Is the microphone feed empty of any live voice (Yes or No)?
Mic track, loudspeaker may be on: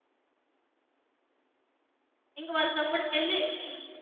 No